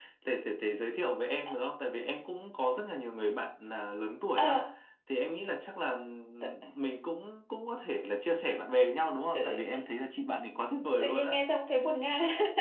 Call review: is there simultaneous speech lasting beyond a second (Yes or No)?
No